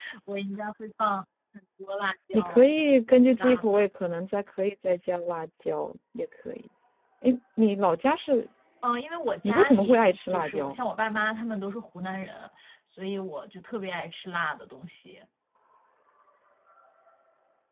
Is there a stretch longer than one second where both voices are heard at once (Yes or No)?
Yes